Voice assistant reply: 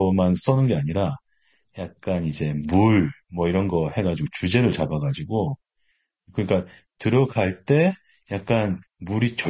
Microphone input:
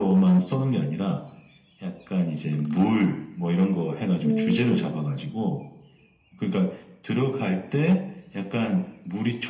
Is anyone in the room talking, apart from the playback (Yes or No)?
Yes